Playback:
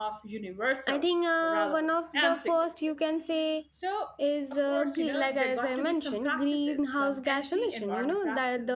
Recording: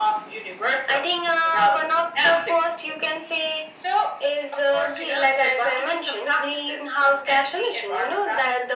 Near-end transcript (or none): none